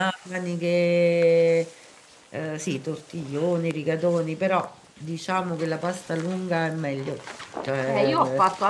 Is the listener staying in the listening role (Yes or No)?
No